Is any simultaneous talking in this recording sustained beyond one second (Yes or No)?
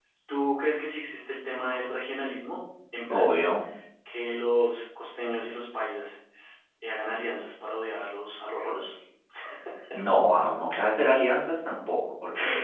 No